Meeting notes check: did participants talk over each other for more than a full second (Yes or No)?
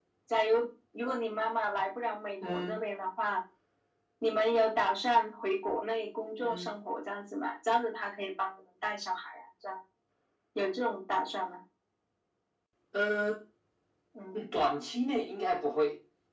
No